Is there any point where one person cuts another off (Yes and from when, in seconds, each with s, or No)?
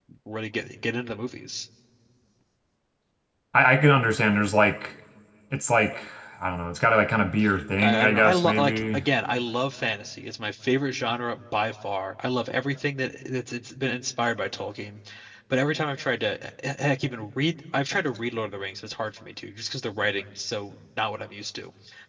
Yes, from 7.8 s